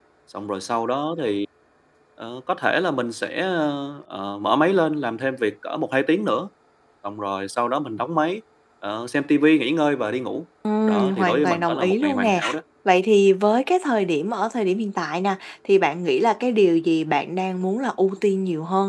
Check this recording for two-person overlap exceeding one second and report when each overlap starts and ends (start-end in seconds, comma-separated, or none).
10.9-12.4